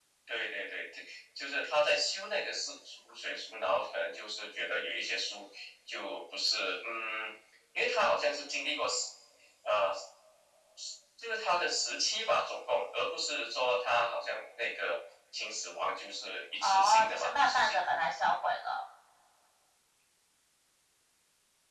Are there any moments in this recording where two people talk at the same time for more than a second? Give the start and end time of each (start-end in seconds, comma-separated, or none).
16.6-17.8